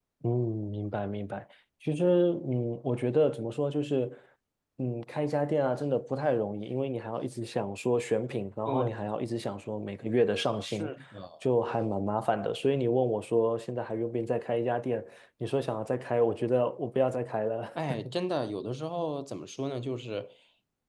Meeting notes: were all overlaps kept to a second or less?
Yes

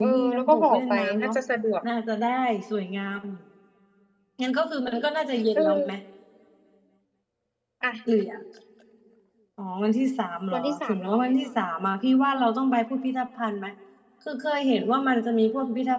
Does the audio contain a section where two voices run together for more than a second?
Yes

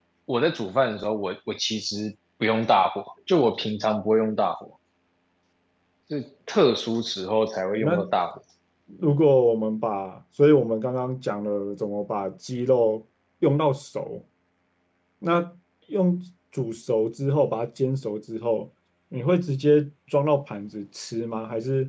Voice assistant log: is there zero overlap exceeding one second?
Yes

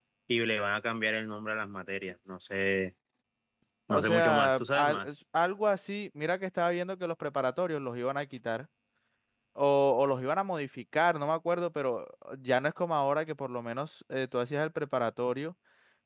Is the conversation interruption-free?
No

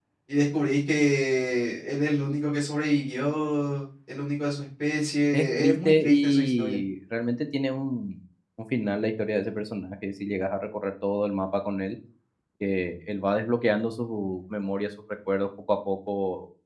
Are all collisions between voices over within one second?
No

